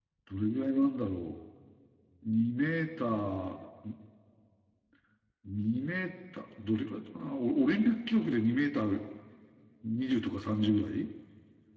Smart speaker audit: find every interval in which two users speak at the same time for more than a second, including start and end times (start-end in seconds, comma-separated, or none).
none